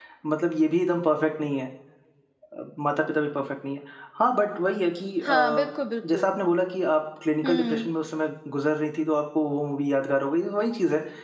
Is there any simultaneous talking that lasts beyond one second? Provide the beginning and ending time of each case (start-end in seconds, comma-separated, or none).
none